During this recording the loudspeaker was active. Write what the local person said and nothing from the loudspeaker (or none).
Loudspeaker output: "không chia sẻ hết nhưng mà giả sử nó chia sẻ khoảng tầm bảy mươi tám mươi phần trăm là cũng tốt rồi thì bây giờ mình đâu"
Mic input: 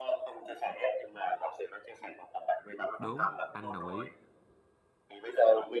đúng, anh đồng ý.